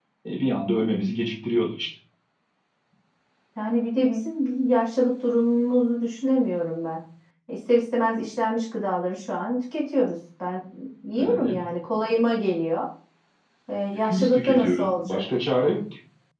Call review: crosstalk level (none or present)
present